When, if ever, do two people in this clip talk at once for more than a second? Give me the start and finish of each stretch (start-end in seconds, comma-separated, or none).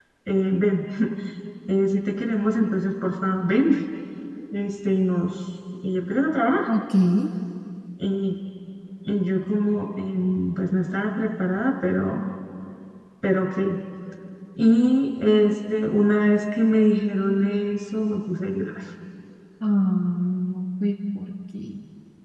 none